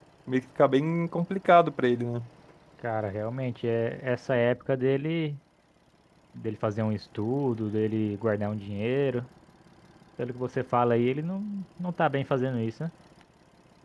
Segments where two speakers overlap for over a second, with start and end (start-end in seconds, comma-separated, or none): none